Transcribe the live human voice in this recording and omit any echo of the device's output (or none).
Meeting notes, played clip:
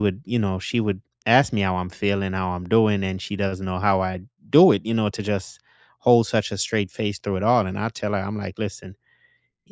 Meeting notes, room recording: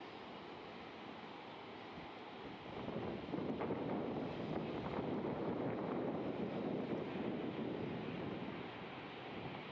none